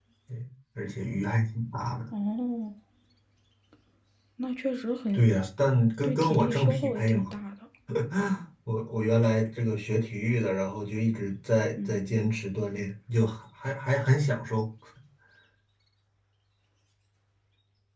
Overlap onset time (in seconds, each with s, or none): 6.0 s